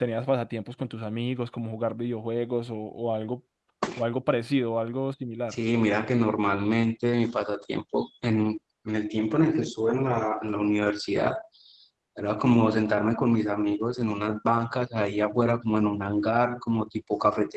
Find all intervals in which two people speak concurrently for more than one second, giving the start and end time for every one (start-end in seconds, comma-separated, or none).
none